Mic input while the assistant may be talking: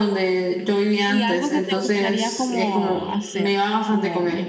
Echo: present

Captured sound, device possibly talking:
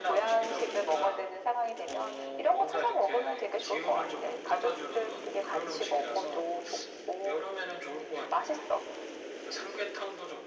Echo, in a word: present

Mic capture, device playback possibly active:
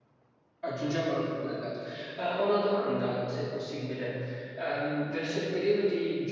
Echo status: none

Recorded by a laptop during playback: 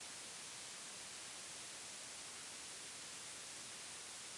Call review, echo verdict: none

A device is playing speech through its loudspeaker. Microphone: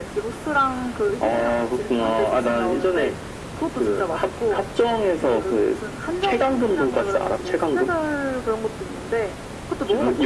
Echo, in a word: present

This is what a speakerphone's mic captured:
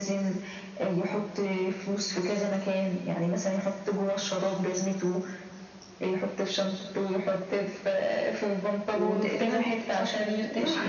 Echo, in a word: present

